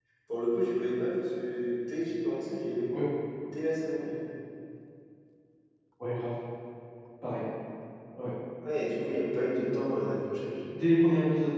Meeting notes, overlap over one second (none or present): none